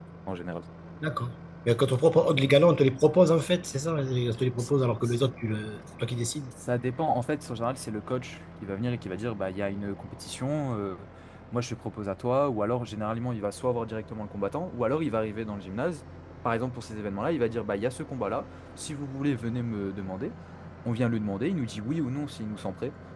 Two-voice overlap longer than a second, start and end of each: none

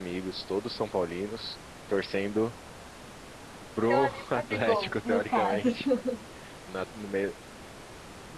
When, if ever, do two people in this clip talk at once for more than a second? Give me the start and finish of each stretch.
3.9-5.7

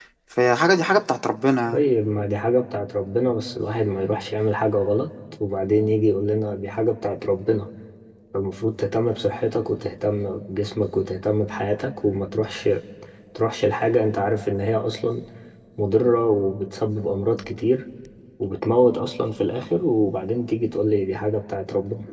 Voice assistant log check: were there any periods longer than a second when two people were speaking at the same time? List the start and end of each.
none

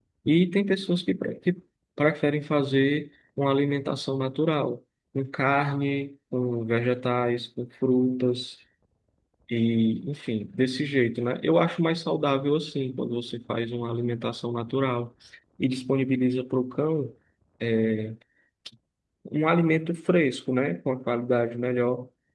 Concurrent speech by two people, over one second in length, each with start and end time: none

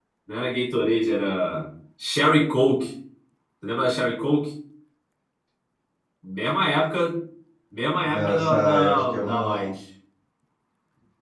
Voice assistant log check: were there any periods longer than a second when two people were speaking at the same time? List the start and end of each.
8.0-9.7

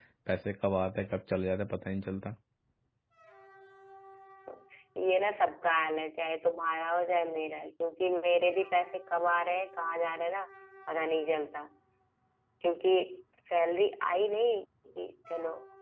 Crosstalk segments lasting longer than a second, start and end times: none

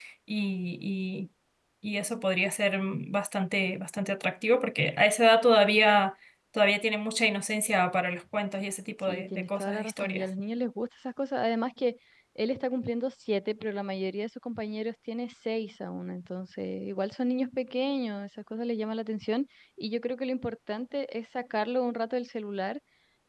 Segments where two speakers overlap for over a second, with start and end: 9.0-10.3

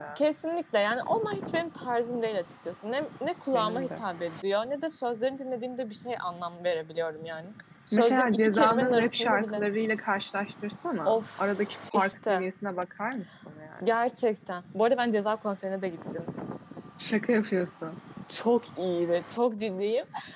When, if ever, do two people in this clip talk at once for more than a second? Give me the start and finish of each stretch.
7.9-9.6, 11.0-12.5

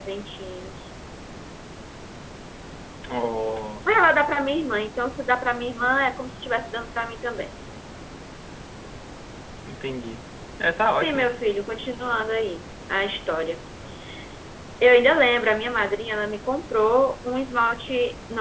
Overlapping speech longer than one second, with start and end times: none

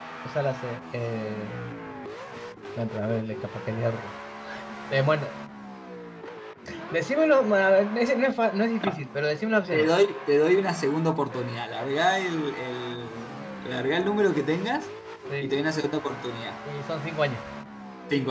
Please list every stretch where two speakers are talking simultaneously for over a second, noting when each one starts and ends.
none

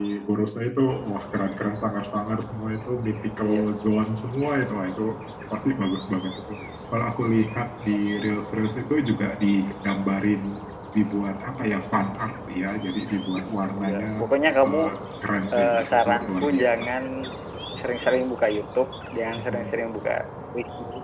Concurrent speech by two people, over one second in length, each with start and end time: 15.5-16.8

